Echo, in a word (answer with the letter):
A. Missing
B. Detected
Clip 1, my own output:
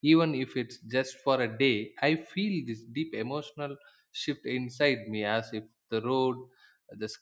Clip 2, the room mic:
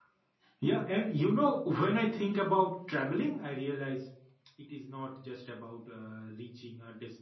A